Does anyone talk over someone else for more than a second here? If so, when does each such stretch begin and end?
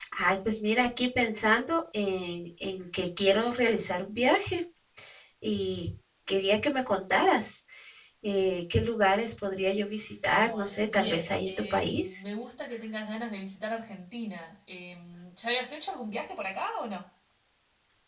10.4-12.2

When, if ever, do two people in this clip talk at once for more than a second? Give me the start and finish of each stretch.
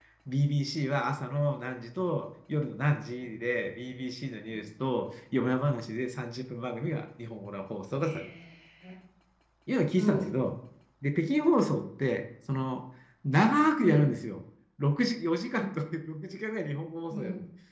none

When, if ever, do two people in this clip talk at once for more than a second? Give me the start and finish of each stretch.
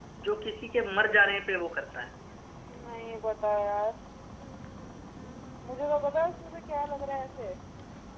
none

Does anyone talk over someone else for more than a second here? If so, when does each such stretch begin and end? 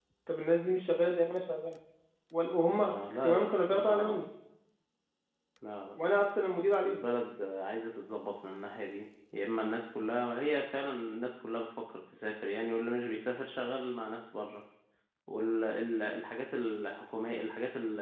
2.8-4.3

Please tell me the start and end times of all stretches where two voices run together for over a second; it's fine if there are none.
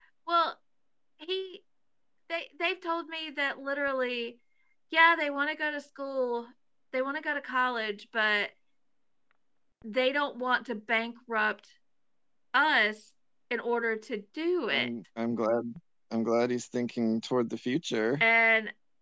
none

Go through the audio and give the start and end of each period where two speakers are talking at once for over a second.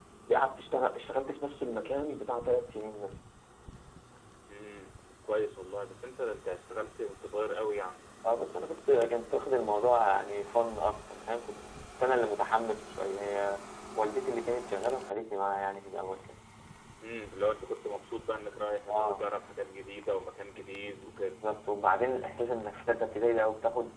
none

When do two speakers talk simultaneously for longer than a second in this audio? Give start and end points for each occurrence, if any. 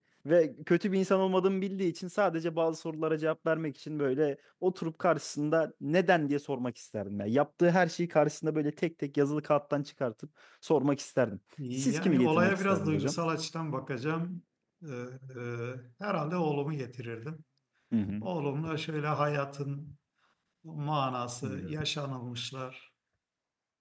11.8-13.1

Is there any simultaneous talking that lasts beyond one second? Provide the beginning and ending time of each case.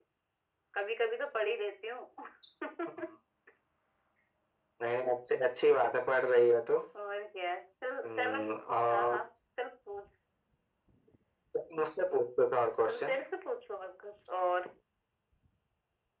none

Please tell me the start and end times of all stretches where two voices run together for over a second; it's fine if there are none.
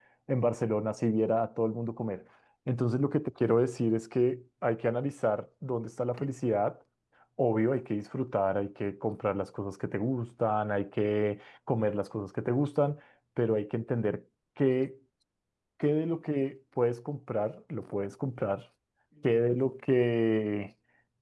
none

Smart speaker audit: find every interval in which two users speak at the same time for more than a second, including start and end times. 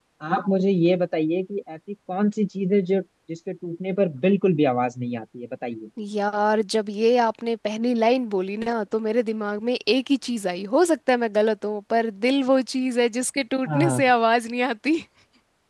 none

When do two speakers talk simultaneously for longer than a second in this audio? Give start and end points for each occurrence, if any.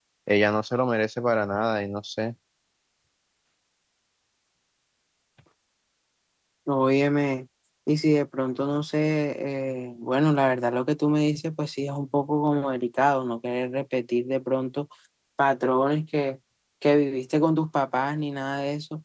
none

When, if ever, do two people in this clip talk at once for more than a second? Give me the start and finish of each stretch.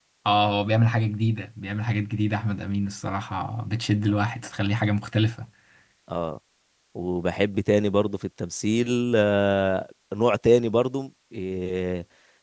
none

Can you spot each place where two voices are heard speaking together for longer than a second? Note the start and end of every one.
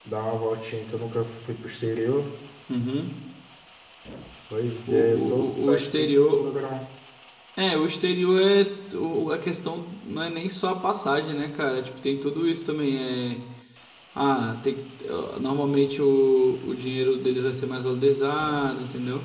4.9-6.5

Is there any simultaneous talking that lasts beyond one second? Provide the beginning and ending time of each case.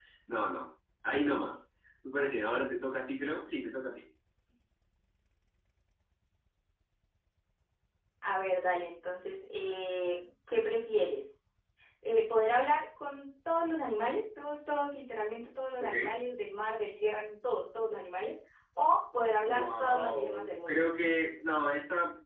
19.5-20.8

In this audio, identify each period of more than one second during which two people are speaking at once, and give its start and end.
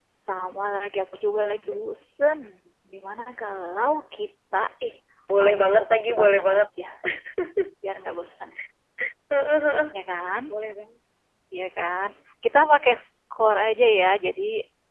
5.4-6.6

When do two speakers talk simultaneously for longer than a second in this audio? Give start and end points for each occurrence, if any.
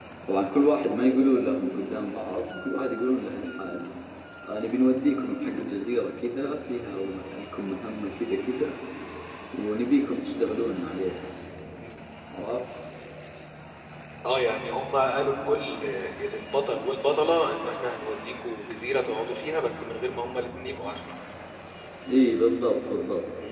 none

